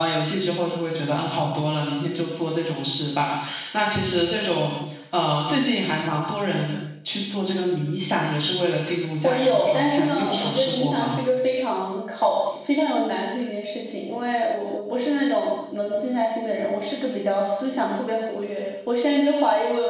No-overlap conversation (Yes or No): No